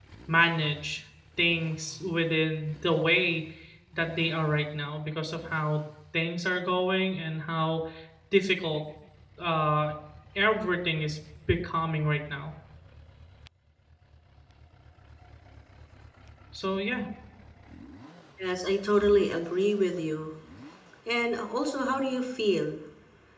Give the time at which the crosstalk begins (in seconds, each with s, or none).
none